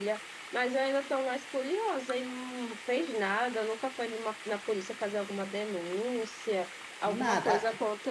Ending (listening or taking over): listening